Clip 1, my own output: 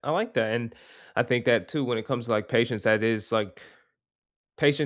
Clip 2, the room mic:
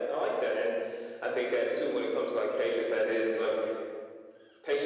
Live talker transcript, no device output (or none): none